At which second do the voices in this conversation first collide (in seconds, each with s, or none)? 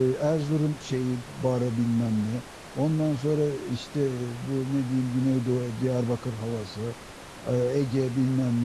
none